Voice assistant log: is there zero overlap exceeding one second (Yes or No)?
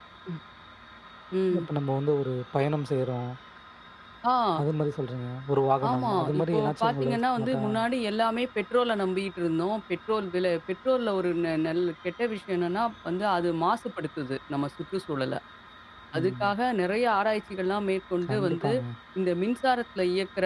No